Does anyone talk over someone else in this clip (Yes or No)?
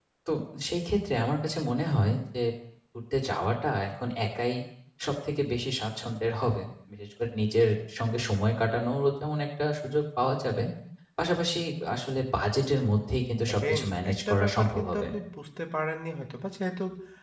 Yes